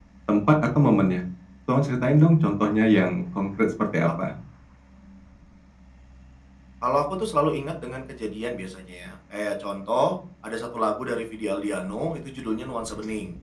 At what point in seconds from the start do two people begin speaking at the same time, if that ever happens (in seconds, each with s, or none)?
none